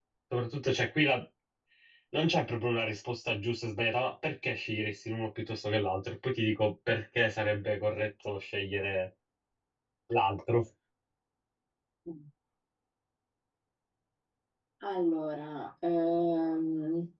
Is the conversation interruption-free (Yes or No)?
Yes